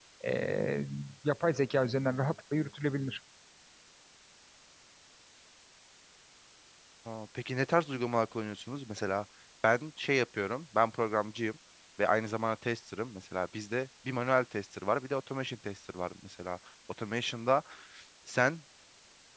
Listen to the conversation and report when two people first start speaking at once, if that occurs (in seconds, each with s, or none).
none